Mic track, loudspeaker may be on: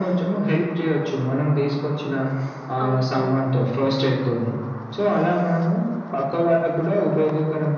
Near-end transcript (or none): అవును. అవును.